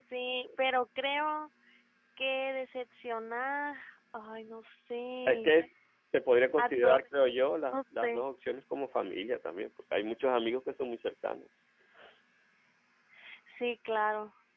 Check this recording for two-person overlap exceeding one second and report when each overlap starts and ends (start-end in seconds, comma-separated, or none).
none